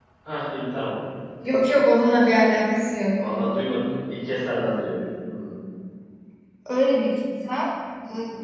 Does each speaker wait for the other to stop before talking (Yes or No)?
Yes